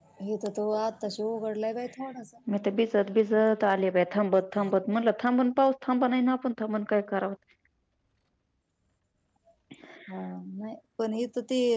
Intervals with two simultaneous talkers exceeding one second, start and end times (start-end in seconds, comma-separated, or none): none